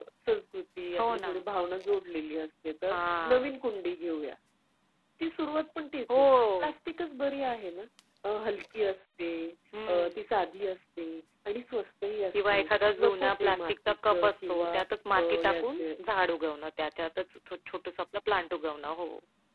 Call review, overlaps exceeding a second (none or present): present